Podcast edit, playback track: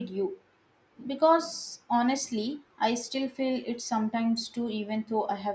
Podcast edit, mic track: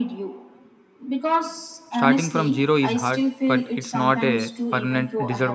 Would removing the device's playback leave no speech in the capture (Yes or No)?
No